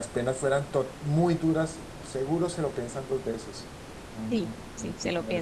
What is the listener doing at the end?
taking over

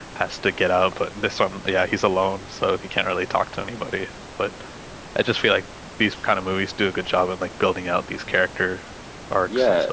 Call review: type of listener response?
taking over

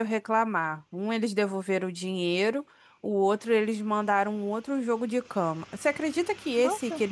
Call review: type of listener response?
listening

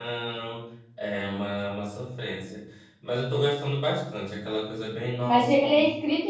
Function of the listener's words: taking over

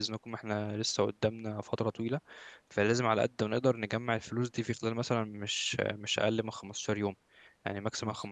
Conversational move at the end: listening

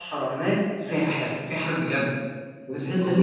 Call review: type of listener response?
listening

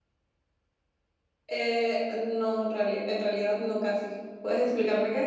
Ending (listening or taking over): taking over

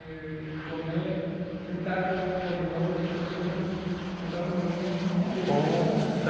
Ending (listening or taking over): taking over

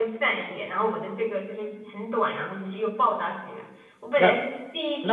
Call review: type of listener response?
listening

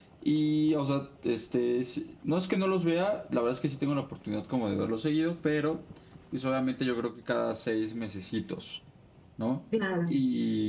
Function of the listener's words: listening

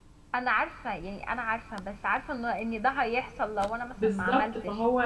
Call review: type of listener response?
taking over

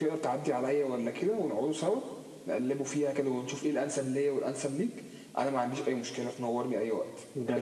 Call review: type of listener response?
taking over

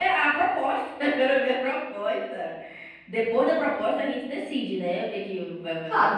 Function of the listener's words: taking over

